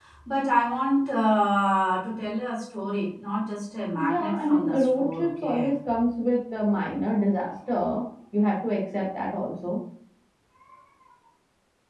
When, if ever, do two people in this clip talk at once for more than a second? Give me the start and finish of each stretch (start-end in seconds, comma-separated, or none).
3.9-5.7